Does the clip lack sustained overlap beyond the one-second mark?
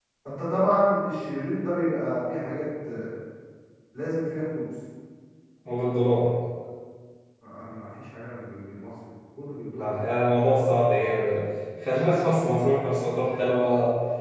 Yes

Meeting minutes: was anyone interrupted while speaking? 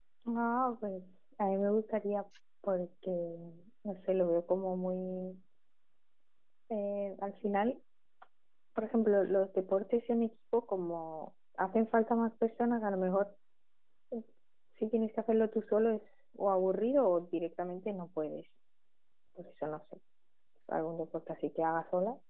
No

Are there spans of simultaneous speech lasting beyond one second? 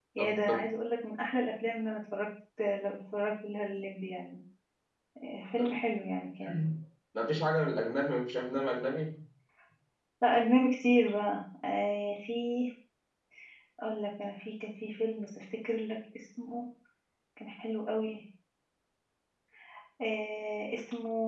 No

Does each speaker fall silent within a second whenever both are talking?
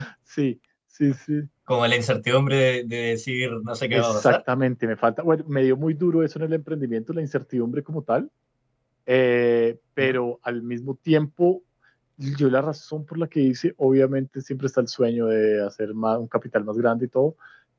Yes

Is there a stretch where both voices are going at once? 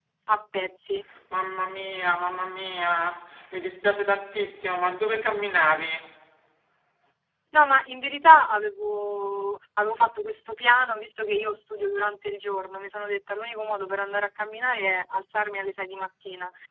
No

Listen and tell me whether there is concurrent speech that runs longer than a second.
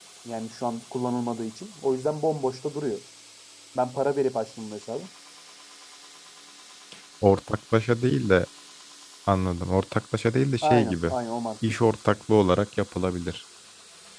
No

